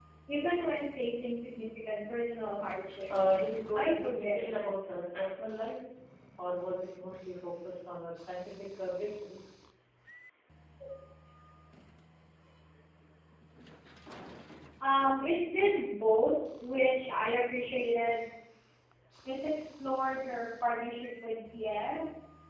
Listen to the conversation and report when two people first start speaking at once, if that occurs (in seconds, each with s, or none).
3.1 s